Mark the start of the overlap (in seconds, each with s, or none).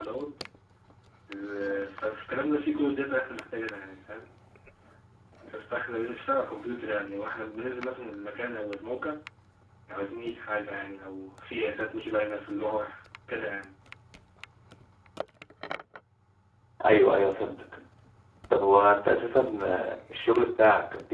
none